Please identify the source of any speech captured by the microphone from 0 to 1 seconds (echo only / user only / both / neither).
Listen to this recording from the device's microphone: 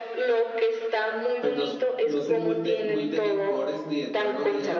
echo only